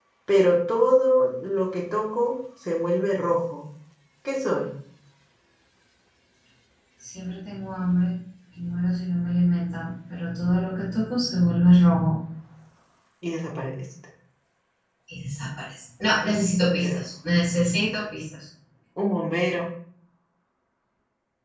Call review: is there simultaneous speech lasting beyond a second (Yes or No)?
No